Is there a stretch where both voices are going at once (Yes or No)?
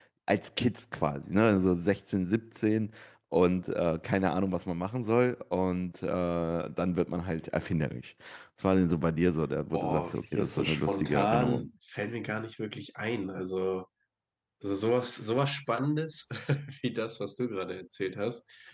Yes